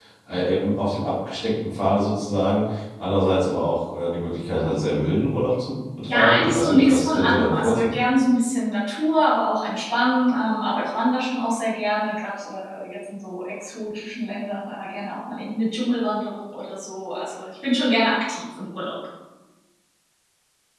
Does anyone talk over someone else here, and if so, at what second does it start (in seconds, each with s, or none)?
6.1 s